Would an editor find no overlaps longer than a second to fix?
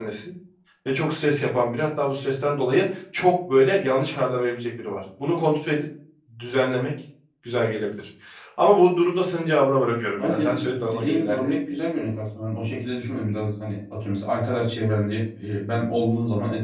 No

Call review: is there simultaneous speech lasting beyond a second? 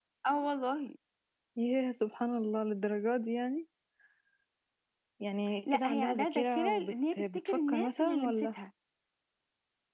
Yes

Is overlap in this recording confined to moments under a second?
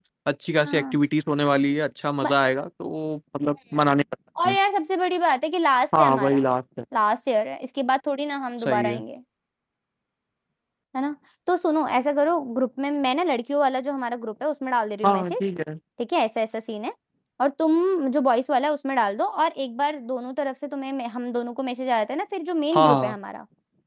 Yes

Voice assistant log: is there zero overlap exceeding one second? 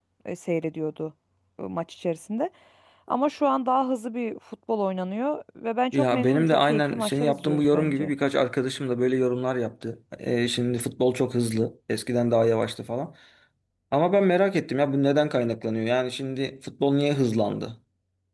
No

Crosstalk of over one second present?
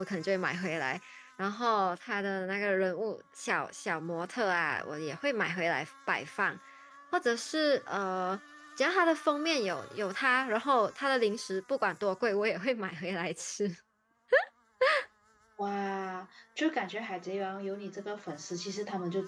No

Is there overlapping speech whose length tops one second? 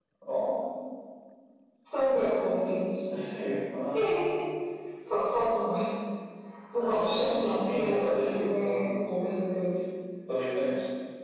Yes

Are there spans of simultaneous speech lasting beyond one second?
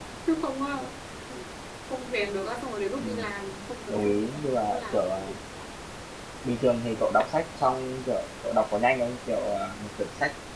Yes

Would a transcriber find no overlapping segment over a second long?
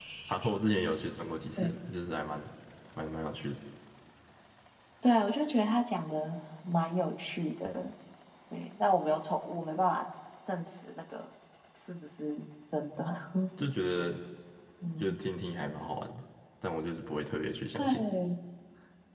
Yes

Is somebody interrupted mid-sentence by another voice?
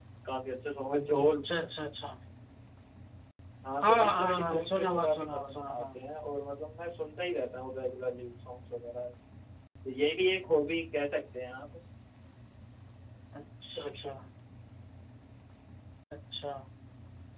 Yes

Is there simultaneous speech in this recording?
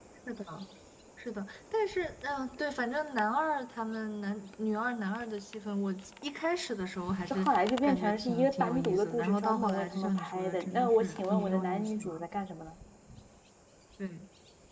Yes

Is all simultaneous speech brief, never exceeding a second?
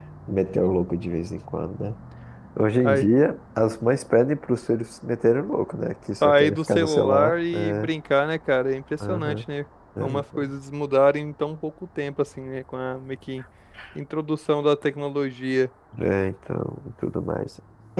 No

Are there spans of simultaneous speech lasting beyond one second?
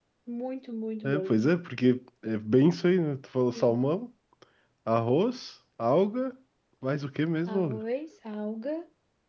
No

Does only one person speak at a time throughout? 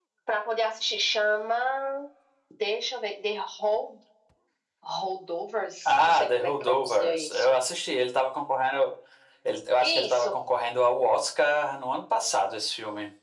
No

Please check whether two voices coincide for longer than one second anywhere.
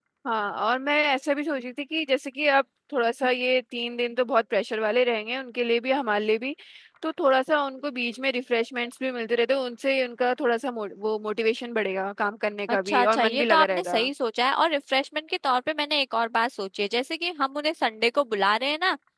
Yes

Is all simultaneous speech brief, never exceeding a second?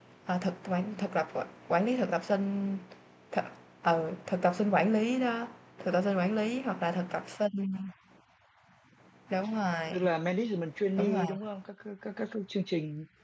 Yes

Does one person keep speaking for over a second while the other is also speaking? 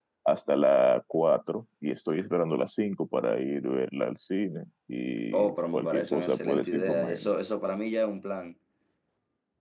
Yes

